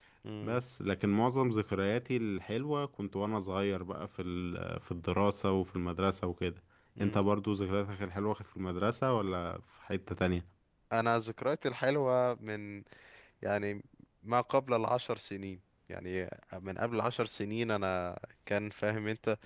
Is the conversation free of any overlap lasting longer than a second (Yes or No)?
Yes